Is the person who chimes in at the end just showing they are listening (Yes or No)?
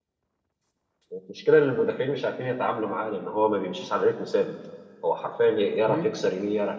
Yes